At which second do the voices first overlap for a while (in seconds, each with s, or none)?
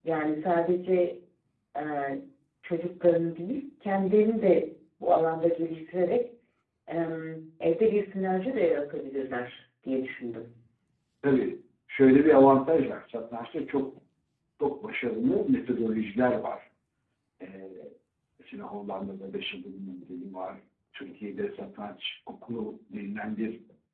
none